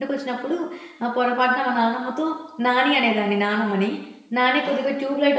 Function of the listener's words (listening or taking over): listening